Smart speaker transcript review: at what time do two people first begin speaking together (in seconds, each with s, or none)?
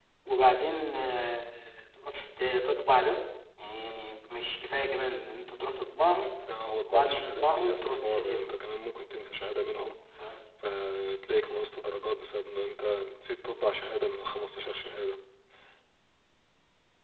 6.9 s